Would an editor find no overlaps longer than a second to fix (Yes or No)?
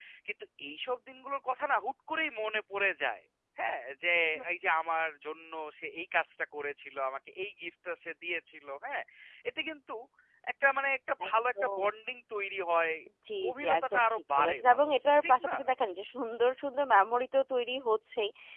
No